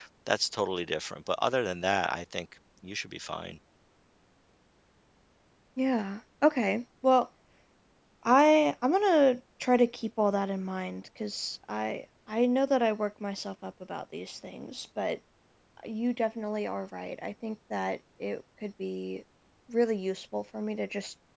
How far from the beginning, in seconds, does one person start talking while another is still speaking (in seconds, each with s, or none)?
none